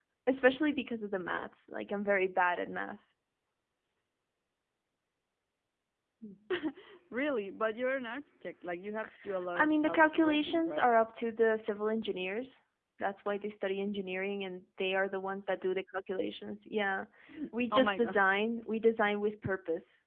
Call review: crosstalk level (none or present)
present